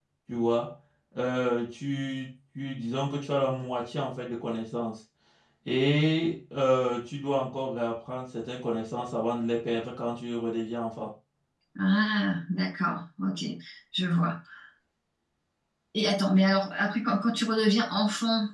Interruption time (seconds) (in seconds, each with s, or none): none